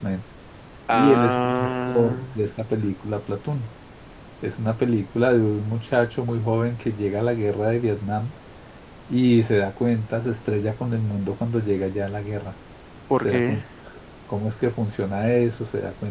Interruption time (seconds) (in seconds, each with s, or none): 0.9 s